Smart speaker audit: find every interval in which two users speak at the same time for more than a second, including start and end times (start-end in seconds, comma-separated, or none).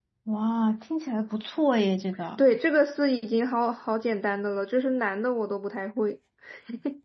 none